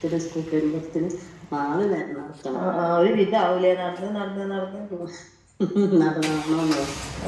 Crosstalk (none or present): none